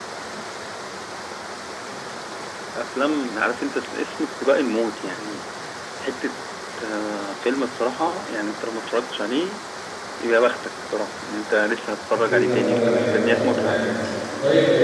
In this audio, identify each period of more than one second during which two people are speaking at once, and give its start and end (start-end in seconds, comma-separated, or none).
12.2-13.8